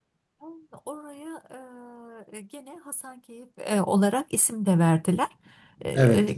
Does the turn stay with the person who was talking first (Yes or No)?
Yes